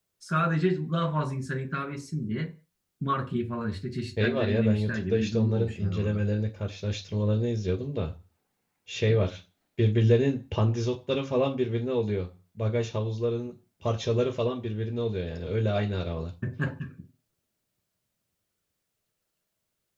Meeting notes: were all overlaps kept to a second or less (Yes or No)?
No